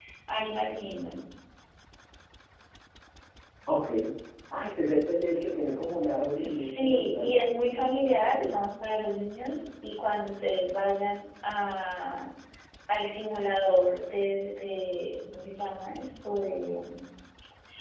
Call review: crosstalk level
present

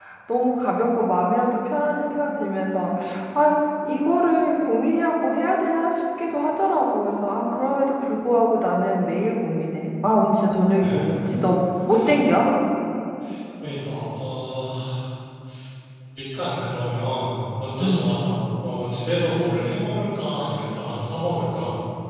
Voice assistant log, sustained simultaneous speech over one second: none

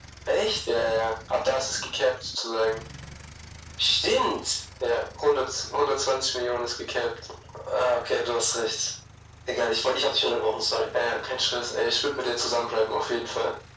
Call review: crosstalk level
none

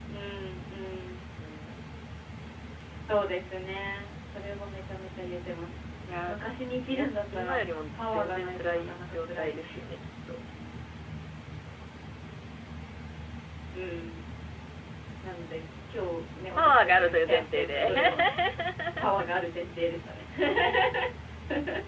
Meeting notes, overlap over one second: present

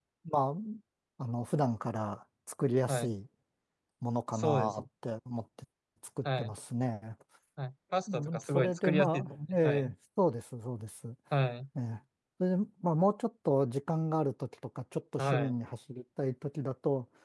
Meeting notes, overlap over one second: present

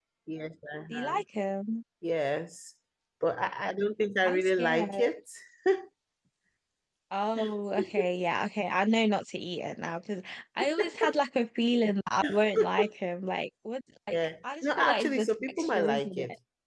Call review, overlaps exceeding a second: present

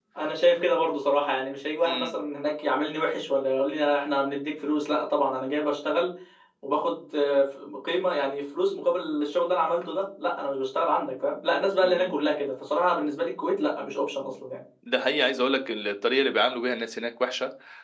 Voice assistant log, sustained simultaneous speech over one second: none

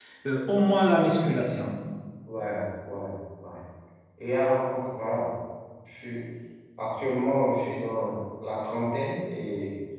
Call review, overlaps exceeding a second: none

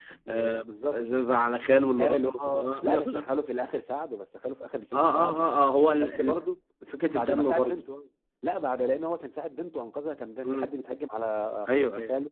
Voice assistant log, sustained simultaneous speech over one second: present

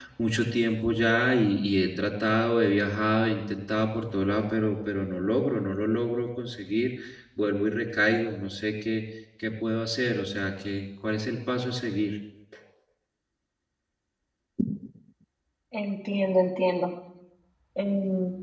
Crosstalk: none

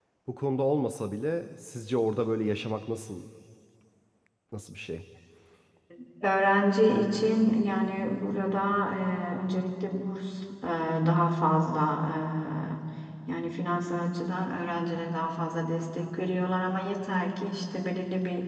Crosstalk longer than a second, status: none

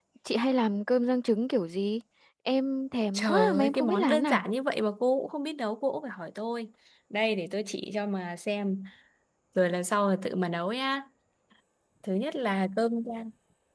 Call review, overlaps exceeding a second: present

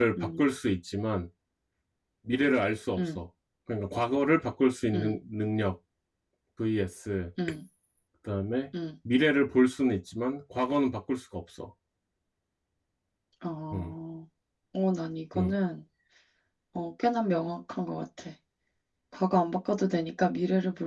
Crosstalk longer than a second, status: none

